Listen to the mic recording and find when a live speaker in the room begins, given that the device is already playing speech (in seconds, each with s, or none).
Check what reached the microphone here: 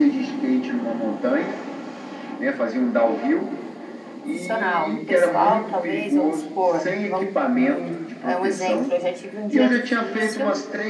4.2 s